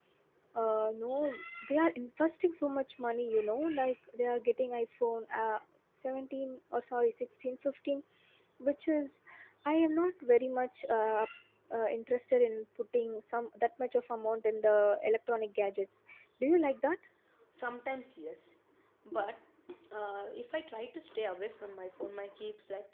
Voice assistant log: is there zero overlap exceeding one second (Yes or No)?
Yes